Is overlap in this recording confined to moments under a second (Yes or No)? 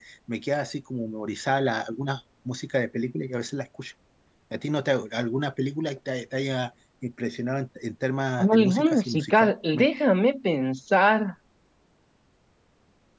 No